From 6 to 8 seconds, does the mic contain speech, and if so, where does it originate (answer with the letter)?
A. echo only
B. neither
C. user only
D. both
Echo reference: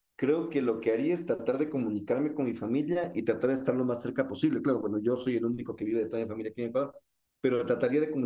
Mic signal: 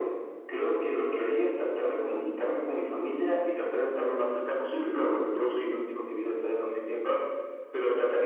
A